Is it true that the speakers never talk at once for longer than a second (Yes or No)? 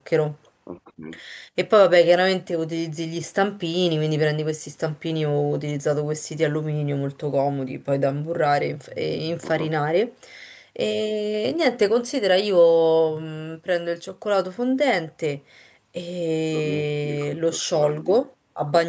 No